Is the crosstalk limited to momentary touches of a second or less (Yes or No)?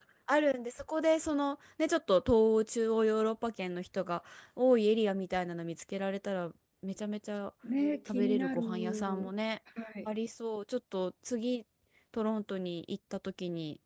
No